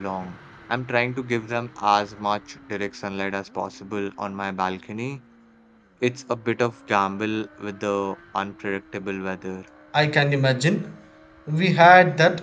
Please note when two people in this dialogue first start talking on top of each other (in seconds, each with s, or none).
none